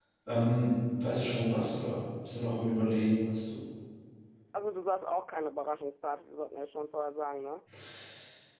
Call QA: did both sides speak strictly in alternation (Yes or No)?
Yes